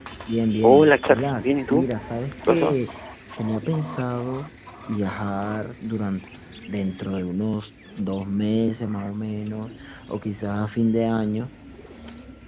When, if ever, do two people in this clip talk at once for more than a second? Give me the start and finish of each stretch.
0.6-1.9

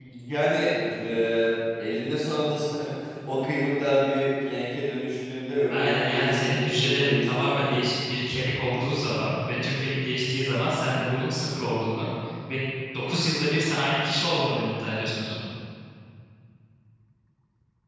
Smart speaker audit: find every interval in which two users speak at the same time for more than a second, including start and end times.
5.7-7.8

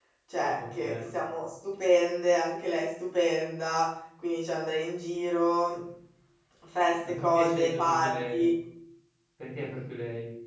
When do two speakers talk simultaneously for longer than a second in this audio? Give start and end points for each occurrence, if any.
7.1-8.4

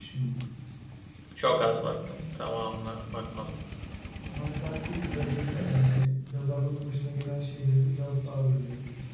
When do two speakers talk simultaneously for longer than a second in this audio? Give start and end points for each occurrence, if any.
none

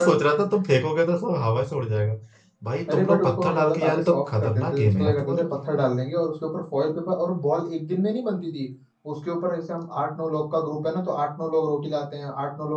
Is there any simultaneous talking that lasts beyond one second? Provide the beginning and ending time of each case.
2.9-5.5

